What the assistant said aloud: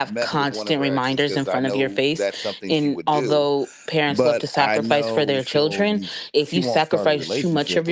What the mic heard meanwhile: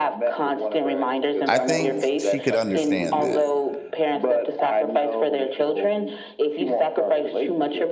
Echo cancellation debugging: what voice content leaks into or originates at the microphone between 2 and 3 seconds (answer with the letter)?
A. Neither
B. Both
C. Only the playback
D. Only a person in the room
B